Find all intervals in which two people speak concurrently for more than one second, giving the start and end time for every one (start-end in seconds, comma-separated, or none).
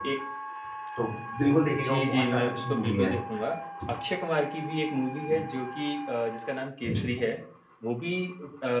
1.8-3.1